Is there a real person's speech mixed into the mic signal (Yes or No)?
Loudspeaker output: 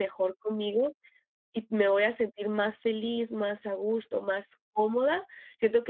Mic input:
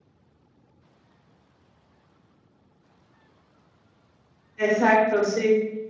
Yes